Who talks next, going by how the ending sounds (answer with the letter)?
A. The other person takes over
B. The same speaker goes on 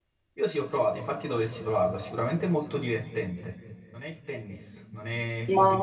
B